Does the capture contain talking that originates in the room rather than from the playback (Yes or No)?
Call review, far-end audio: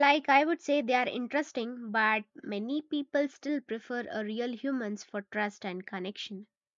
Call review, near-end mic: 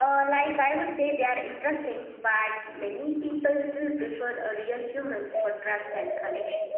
No